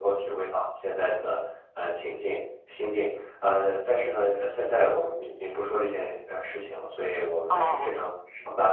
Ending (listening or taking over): listening